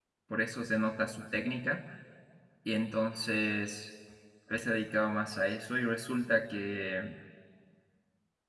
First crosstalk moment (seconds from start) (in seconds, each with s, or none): none